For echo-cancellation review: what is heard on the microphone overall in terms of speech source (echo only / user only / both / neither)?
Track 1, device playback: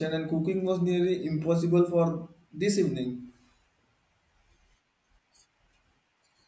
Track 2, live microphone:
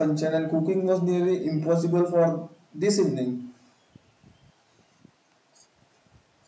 echo only